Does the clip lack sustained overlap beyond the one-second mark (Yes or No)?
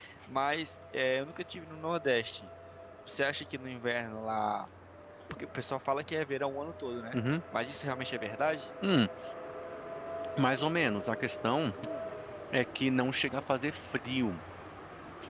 Yes